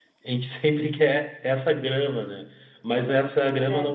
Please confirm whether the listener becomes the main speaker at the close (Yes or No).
No